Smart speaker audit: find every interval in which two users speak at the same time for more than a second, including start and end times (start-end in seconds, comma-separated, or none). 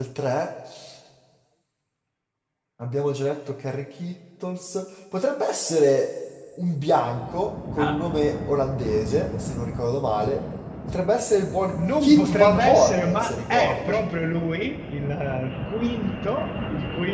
12.0-14.0